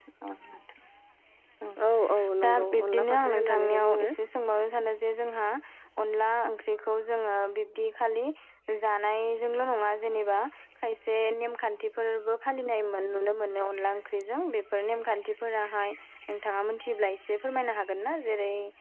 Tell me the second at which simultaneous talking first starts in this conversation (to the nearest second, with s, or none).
2 s